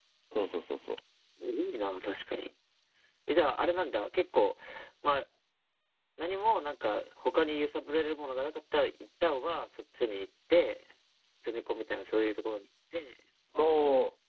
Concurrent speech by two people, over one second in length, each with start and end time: none

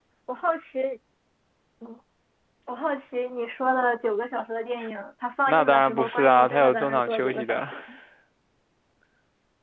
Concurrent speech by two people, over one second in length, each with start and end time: 5.5-7.7

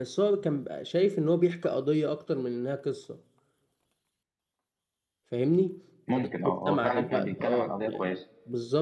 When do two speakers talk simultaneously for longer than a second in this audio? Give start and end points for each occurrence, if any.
6.1-8.1

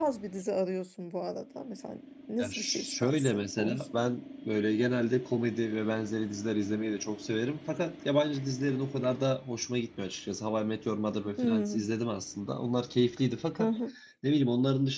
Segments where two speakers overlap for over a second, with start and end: 2.4-3.9

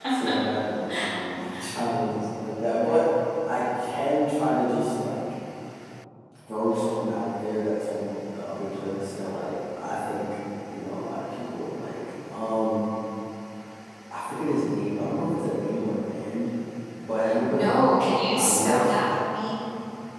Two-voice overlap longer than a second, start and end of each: 17.5-19.0

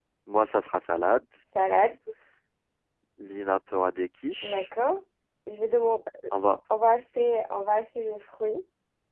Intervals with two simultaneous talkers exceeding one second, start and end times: none

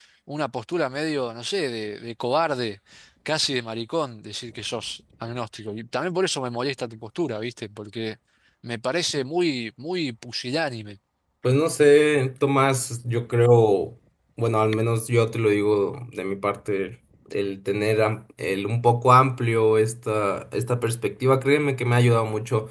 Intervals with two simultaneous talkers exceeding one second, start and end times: none

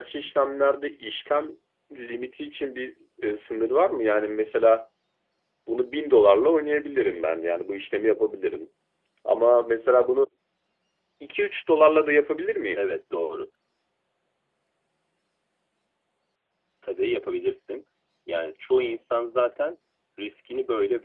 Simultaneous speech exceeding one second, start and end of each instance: none

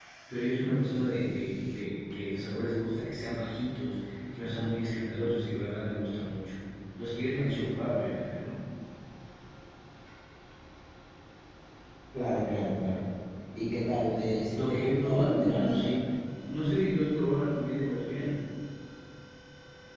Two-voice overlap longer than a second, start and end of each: 14.5-16.0

